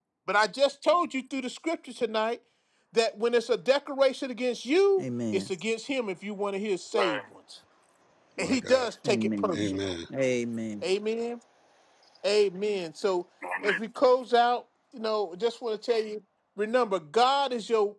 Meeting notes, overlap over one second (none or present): present